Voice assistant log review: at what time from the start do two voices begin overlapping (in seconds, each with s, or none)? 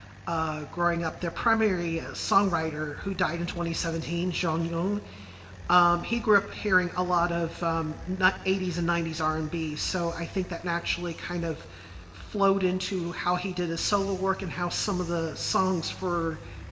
none